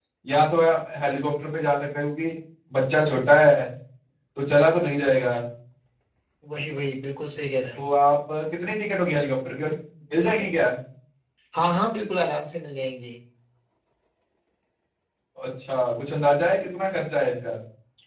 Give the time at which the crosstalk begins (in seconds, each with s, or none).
none